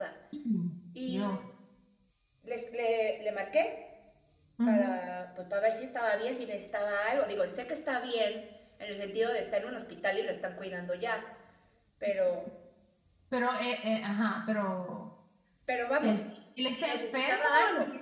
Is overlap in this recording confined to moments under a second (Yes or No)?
No